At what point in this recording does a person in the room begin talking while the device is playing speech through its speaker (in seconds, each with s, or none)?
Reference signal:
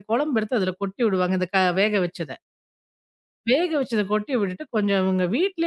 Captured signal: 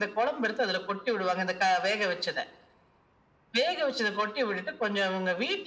none